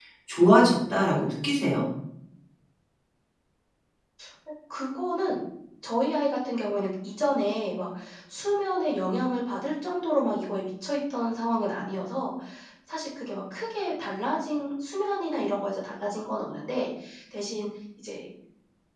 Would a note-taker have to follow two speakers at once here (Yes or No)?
No